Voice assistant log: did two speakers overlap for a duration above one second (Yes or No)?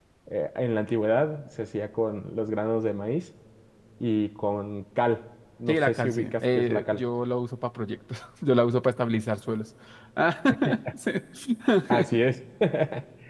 Yes